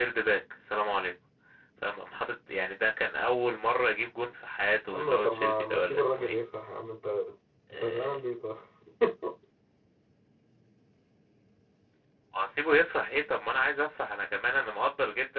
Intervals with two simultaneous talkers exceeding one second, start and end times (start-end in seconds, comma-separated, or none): 4.9-6.3